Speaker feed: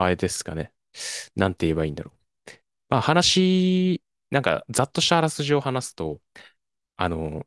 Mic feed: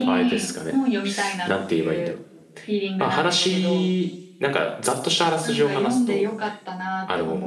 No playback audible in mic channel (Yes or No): No